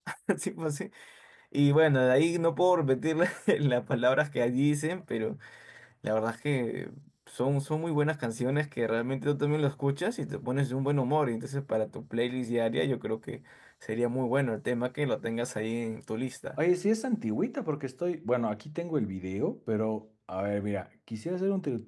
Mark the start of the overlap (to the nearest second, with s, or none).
none